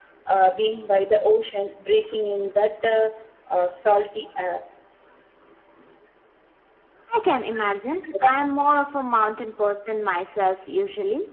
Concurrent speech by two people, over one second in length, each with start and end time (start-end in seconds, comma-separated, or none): none